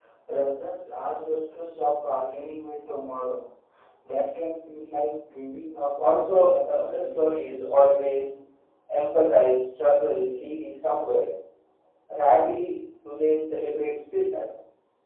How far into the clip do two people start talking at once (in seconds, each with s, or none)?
6.0 s